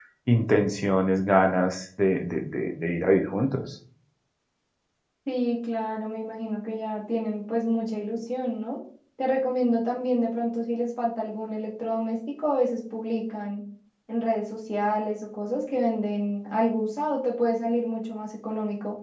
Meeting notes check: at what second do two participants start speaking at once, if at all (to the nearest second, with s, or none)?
none